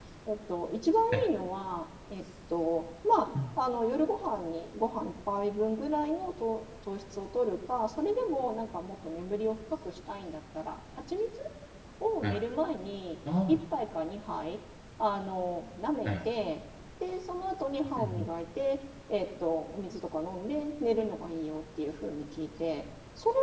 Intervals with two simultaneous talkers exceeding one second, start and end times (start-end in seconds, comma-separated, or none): none